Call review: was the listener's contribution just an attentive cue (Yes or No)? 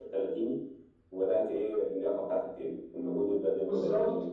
No